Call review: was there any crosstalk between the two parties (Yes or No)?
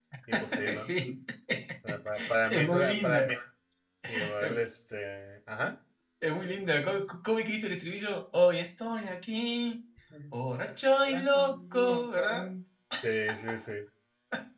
Yes